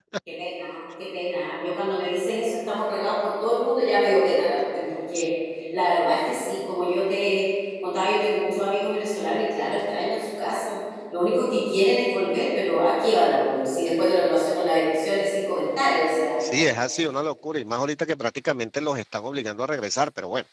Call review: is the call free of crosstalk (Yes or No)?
Yes